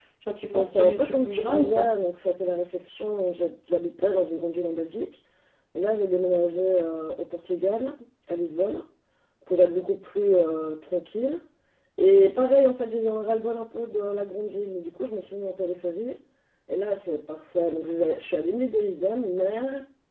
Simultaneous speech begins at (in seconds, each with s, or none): 0.5 s